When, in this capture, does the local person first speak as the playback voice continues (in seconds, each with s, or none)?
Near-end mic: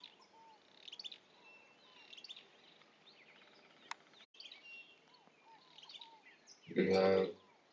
6.8 s